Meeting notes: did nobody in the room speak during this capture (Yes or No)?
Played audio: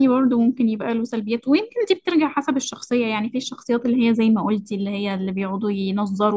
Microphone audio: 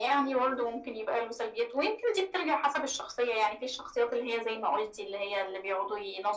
Yes